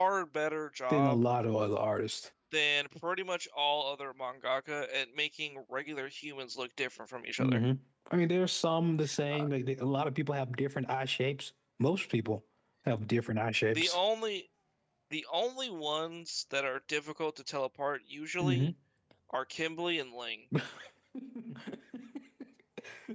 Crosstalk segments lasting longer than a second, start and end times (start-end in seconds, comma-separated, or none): none